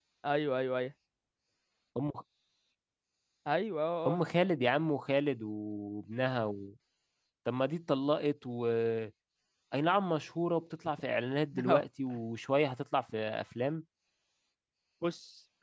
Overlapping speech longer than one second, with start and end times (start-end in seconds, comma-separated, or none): none